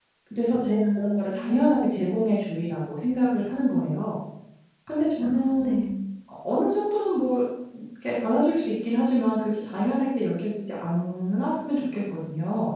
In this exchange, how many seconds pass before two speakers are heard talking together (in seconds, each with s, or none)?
0.6 s